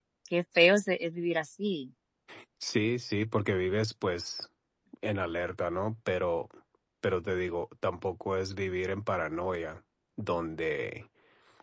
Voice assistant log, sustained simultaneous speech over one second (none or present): none